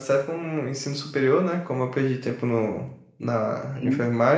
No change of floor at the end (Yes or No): Yes